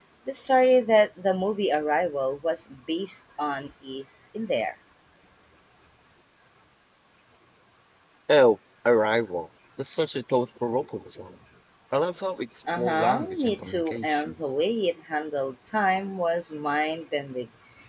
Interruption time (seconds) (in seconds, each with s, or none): 12.8 s